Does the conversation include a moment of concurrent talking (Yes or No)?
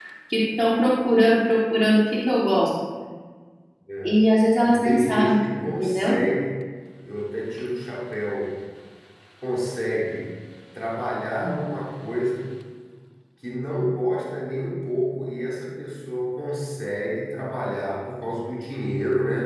Yes